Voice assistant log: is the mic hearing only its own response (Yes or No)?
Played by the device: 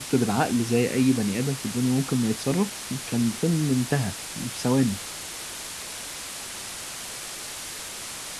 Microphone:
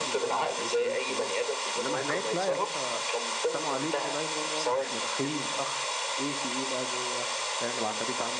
No